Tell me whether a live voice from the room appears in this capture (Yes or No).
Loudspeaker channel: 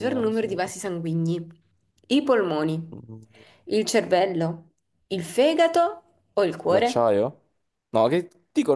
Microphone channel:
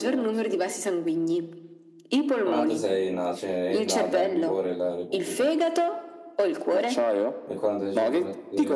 Yes